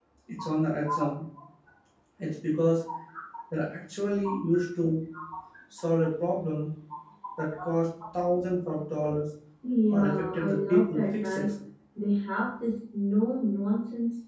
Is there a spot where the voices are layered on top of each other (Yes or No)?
Yes